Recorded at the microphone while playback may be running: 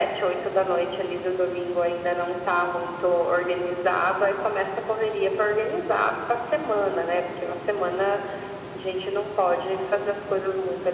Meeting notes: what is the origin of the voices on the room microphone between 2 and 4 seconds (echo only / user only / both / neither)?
echo only